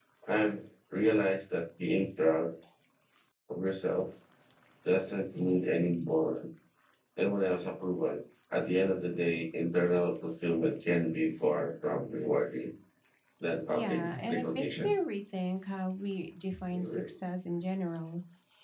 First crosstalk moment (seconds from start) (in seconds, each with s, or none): 13.7 s